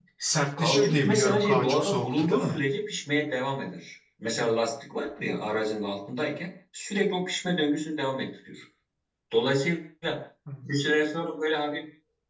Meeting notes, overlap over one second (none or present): present